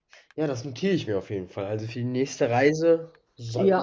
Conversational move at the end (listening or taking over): taking over